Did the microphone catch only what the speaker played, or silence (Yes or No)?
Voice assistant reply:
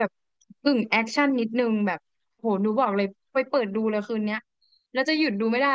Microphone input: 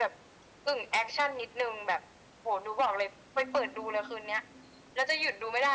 No